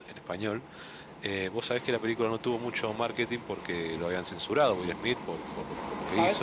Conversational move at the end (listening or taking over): taking over